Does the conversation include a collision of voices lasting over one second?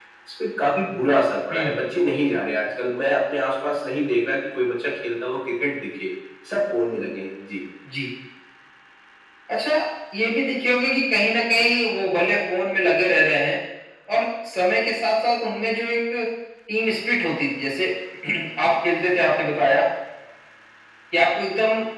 No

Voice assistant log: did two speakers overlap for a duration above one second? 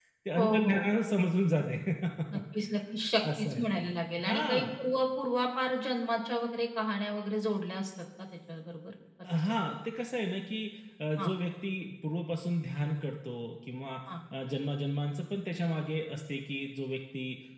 No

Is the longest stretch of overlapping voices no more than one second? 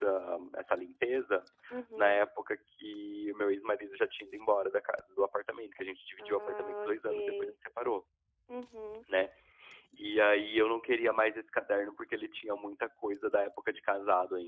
No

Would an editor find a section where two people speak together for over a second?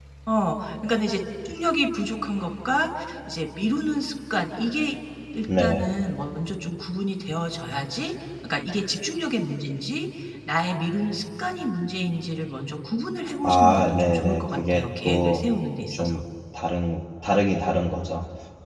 Yes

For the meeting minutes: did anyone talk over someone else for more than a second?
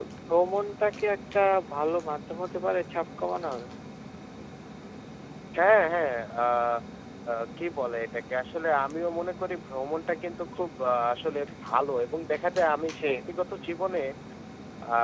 No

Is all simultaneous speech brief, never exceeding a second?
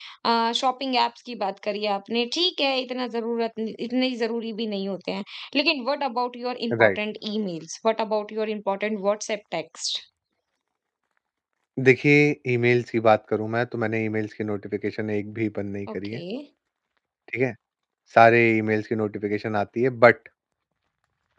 Yes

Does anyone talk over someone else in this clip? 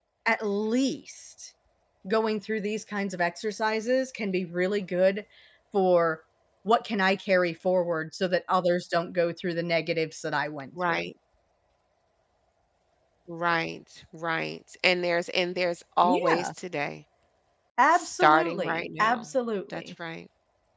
Yes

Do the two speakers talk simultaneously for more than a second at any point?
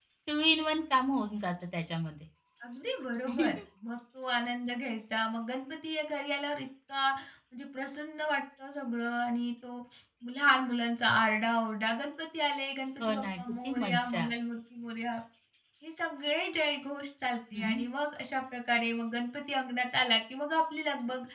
Yes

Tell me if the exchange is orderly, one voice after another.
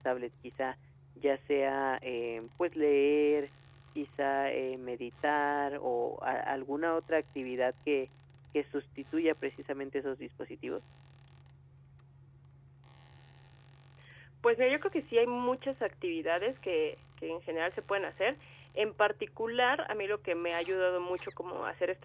Yes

